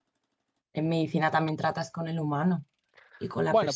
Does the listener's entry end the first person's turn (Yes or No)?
Yes